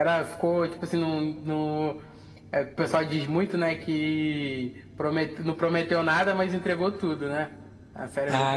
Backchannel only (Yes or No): No